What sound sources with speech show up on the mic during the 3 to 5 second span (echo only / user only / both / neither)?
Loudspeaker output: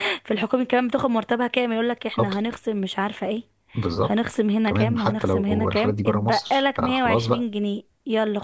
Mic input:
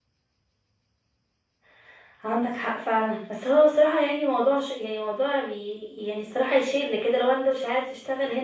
user only